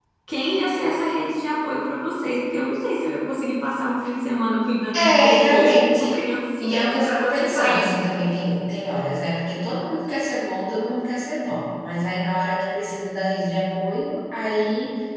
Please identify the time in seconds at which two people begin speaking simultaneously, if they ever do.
4.9 s

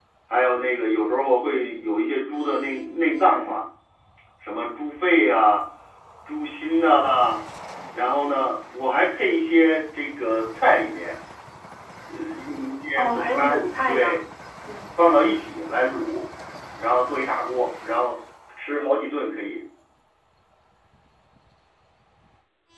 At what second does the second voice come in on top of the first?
12.9 s

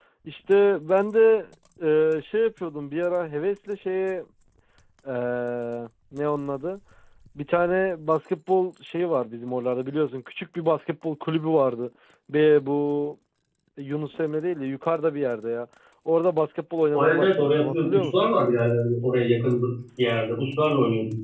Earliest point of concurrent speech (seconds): 16.9 s

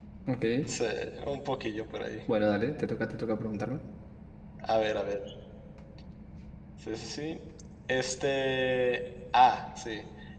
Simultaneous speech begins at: none

